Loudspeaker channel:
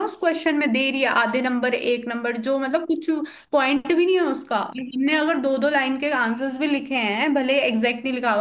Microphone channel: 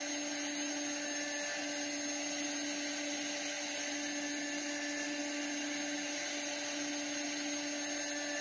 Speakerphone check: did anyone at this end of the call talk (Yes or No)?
No